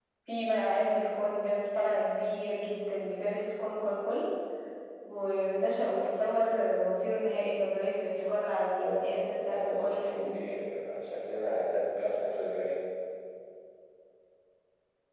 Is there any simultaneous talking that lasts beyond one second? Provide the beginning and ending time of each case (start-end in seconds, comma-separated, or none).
8.8-10.3